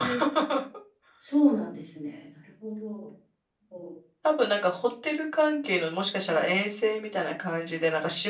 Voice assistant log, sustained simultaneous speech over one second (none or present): none